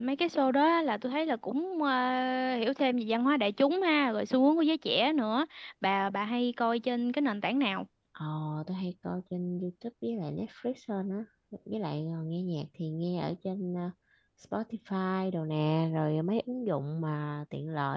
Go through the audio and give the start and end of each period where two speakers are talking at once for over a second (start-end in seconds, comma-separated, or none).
none